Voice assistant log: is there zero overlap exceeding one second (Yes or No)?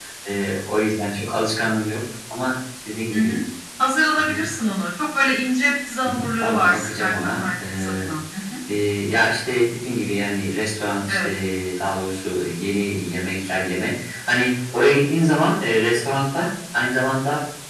No